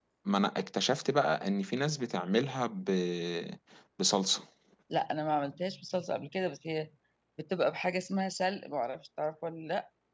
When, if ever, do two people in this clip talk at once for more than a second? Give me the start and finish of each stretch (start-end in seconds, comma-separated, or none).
none